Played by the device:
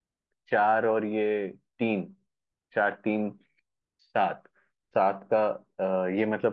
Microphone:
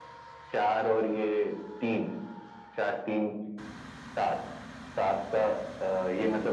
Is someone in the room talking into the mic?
No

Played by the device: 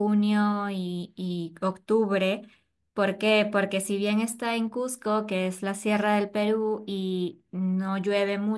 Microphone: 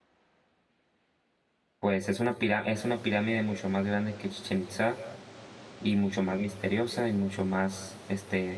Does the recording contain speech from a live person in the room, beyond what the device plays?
Yes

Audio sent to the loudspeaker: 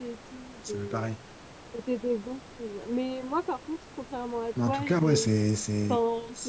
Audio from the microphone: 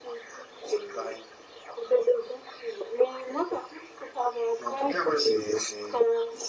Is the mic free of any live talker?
Yes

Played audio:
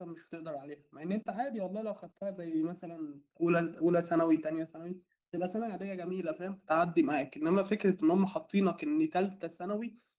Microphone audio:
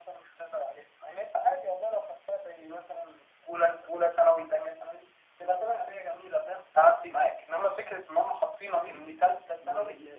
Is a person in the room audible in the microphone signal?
Yes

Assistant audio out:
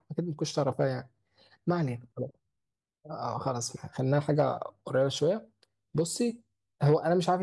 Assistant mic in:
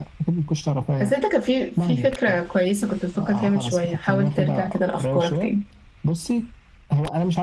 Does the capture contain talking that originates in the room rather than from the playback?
Yes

